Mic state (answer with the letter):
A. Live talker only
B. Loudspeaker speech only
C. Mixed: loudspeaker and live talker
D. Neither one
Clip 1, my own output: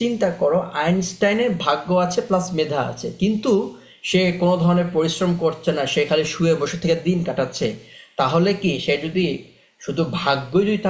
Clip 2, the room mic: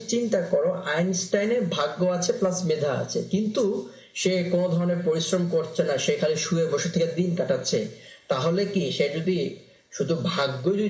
B